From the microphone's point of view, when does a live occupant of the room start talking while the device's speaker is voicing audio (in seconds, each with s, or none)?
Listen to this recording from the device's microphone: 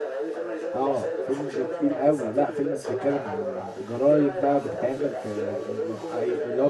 0.7 s